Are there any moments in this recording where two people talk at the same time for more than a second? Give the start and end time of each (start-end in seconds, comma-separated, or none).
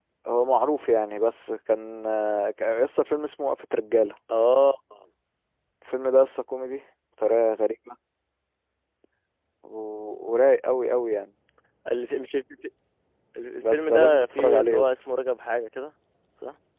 13.6-14.9